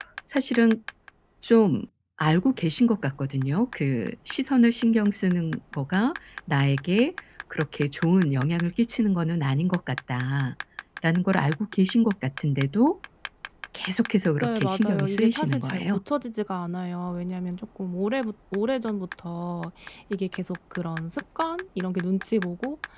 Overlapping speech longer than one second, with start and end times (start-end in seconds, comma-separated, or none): 14.4-16.0